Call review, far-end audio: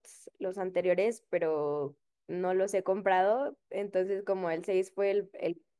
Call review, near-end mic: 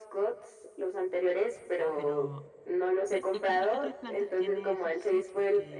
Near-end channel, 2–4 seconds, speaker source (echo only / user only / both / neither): both